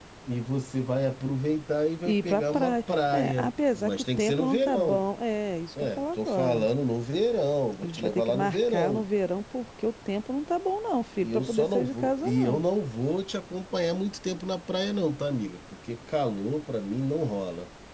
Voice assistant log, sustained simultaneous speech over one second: present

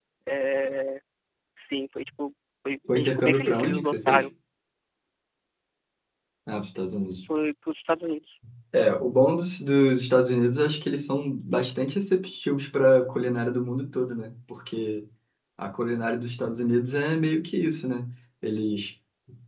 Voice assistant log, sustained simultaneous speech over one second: present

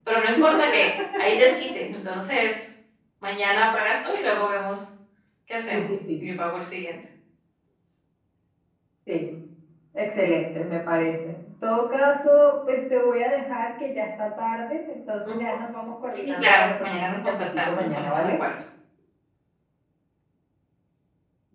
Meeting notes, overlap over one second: present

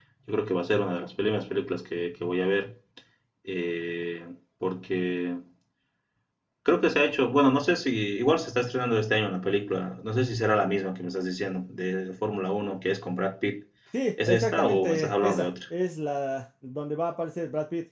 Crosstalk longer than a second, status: present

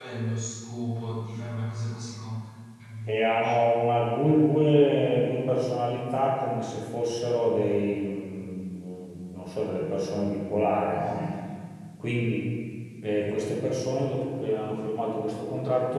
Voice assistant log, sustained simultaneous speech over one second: none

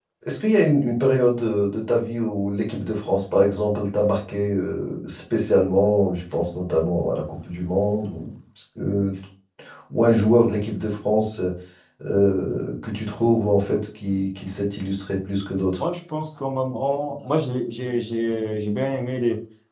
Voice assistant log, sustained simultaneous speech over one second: none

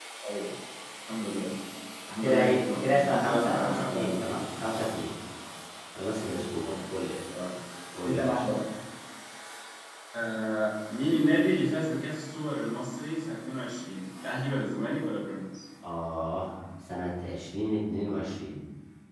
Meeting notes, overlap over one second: present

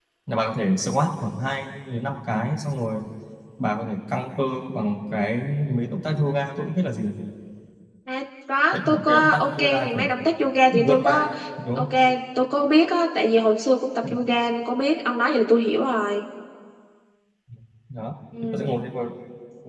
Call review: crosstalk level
present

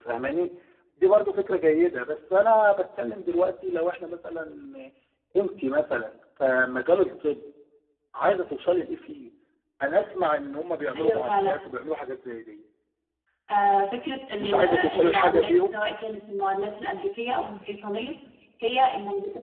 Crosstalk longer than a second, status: present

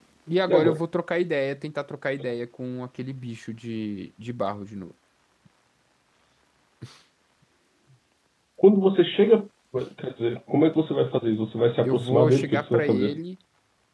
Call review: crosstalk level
present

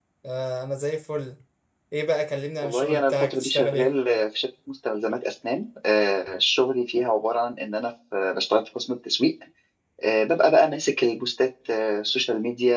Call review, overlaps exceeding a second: present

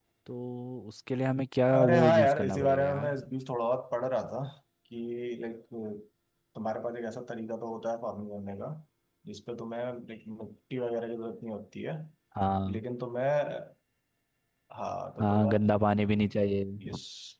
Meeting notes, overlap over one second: present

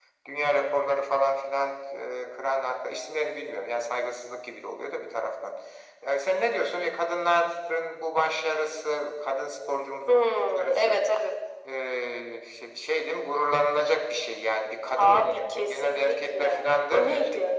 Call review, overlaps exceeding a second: present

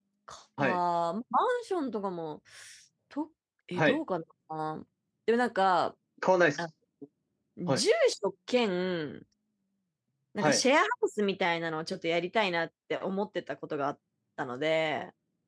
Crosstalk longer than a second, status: none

